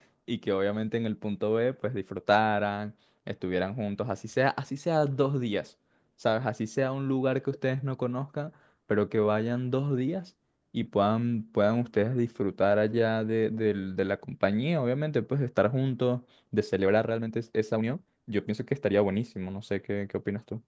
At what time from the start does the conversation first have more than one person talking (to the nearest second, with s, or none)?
none